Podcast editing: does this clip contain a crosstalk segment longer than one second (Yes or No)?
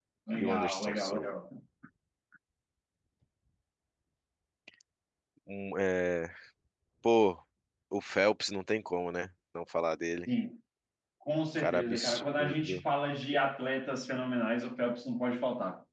Yes